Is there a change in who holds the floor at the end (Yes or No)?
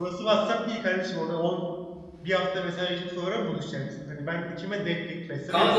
Yes